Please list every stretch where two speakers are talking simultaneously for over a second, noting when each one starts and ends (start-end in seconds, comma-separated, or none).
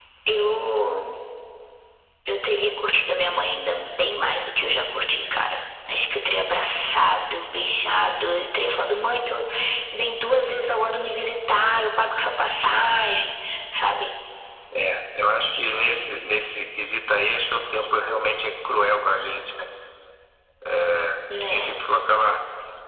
none